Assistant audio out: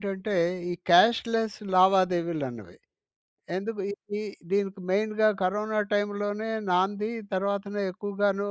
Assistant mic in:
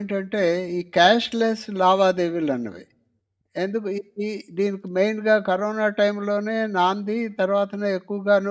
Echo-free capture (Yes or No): No